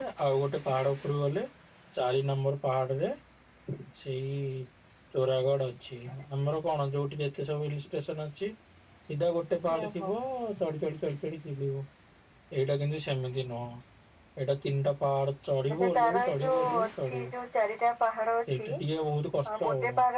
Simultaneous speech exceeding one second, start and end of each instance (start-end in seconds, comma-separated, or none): 15.7-17.3